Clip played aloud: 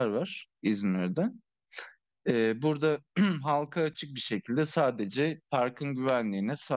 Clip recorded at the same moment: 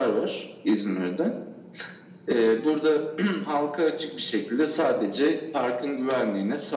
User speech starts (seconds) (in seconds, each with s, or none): none